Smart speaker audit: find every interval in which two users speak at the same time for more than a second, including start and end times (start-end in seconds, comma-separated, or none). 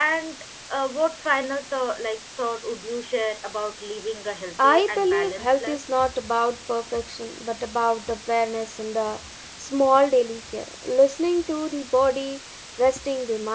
4.6-5.8